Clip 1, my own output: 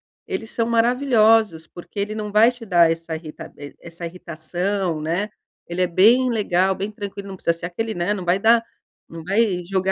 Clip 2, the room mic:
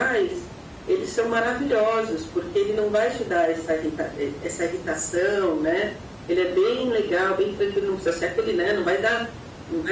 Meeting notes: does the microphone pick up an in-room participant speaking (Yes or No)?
No